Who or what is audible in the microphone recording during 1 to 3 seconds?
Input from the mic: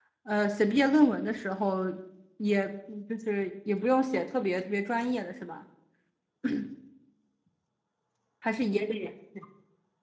user only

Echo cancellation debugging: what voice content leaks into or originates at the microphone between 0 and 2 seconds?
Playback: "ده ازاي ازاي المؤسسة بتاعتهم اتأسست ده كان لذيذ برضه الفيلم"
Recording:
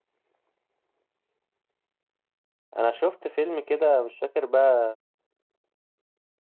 neither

